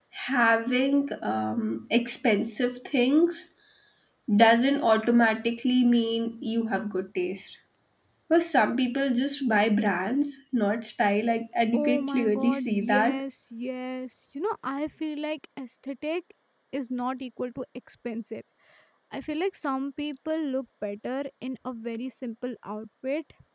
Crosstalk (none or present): present